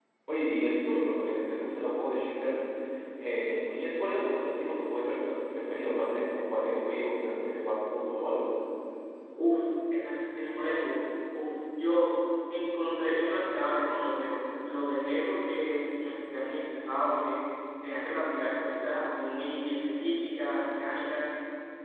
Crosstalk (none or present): none